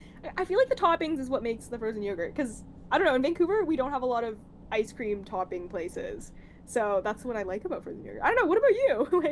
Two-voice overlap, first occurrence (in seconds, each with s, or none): none